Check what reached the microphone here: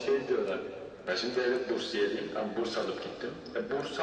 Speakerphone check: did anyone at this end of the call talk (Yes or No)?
No